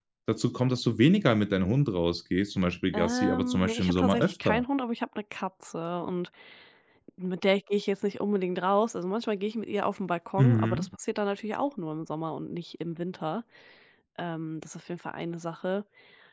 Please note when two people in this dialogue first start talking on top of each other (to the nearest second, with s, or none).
3 s